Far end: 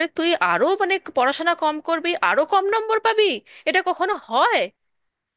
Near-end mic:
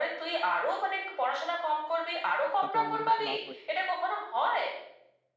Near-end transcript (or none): তাতেও আমাদের কিছু লাভ হয়